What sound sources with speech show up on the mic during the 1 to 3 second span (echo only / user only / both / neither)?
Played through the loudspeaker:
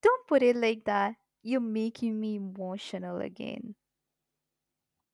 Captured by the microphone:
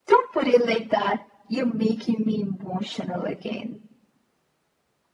echo only